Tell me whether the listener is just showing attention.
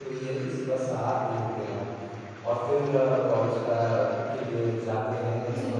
Yes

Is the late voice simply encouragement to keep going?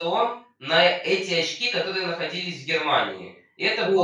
No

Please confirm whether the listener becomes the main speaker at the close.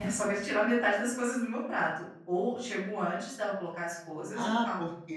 Yes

